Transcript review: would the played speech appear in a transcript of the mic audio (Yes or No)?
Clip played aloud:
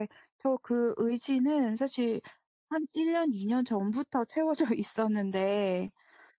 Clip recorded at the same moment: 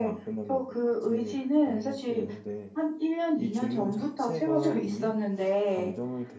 Yes